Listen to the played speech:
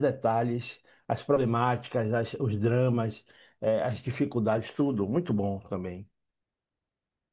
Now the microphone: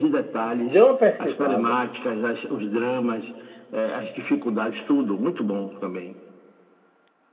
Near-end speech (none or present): present